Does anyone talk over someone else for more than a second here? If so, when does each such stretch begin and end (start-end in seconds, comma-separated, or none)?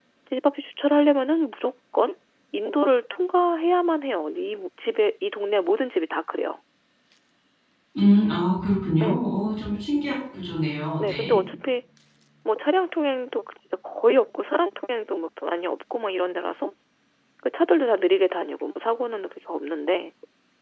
none